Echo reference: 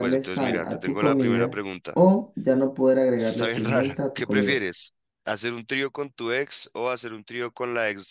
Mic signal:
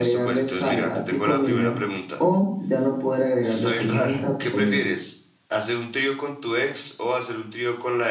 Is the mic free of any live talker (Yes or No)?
Yes